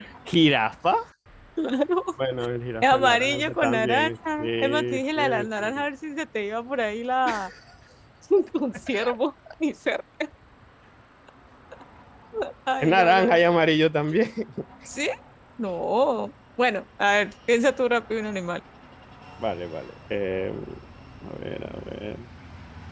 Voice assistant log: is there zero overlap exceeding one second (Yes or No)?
No